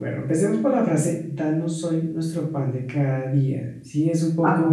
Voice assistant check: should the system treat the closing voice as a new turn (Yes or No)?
No